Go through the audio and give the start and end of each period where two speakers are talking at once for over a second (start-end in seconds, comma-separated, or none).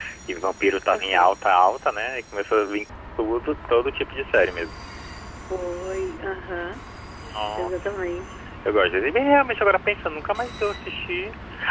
none